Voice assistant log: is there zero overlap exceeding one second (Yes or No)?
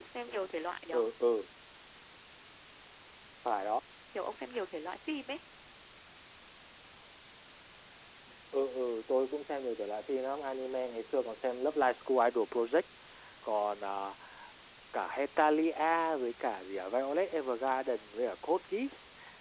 Yes